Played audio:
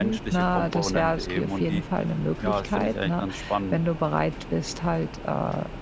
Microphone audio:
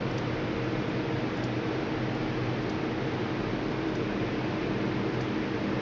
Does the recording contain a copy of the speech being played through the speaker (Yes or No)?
No